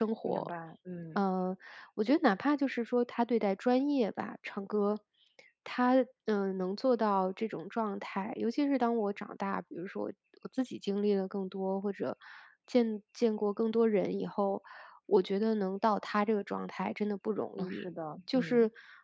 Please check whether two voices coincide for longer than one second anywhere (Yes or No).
No